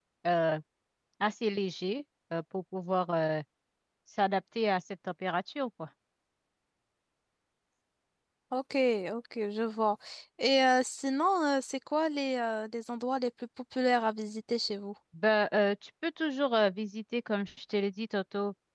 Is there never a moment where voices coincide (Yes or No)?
Yes